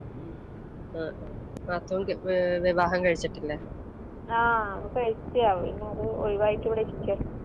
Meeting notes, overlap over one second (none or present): none